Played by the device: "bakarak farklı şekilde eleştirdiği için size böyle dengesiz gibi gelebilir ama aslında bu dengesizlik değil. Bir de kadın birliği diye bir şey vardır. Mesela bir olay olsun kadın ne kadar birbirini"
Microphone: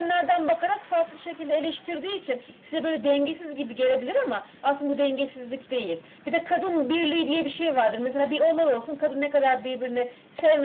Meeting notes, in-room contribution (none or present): none